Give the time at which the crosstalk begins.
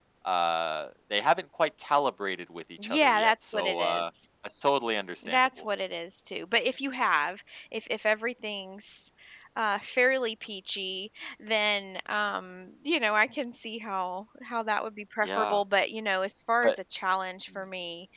2.8 s

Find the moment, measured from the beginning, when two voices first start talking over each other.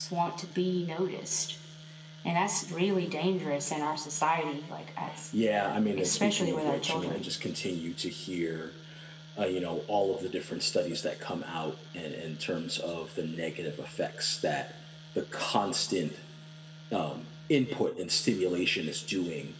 6.0 s

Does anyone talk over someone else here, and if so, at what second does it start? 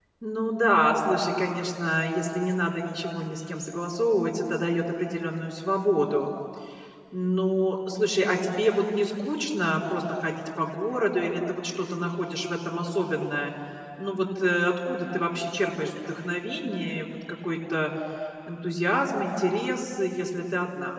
none

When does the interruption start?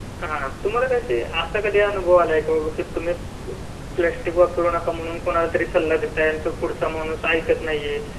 none

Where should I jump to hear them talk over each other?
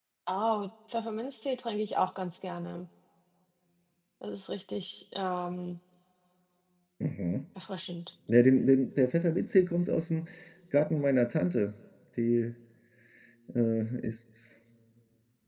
none

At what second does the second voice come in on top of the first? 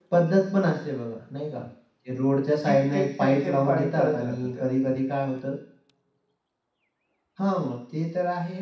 2.7 s

